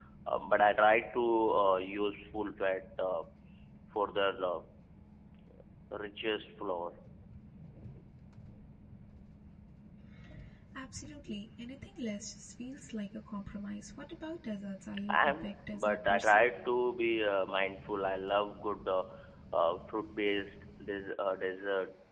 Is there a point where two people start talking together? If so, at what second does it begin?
15.1 s

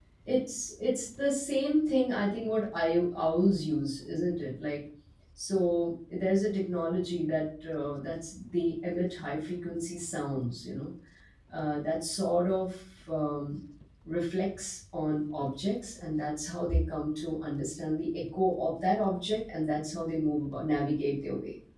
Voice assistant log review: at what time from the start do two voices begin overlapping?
none

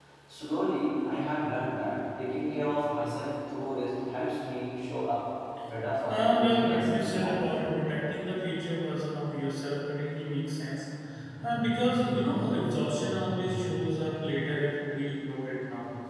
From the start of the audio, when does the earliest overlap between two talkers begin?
6.0 s

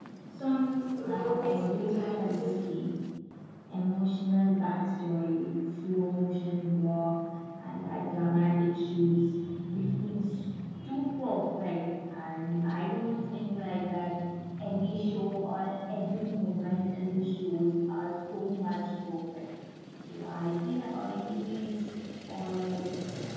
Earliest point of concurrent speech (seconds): 1.0 s

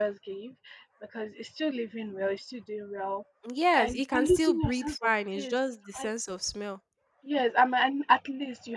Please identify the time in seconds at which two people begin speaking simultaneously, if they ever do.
3.8 s

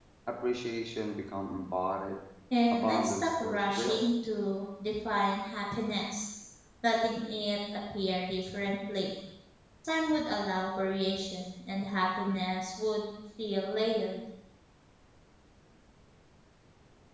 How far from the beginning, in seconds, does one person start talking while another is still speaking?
2.7 s

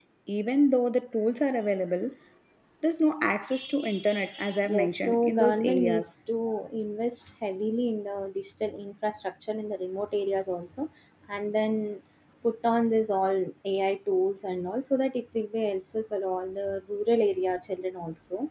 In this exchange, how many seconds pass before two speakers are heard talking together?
4.6 s

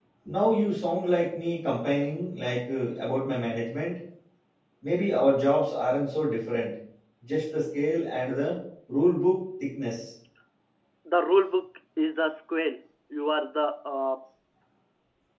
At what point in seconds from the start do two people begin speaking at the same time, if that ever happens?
none

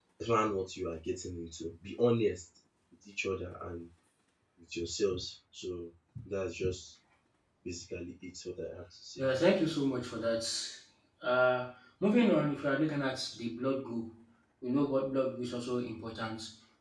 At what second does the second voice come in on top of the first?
none

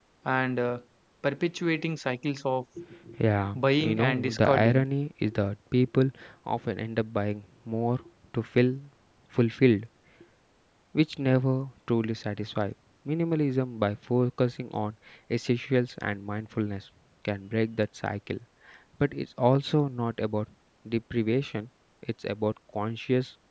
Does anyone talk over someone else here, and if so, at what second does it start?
3.5 s

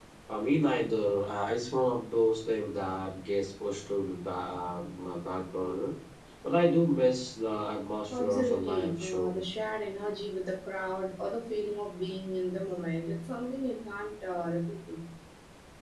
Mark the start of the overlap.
8.1 s

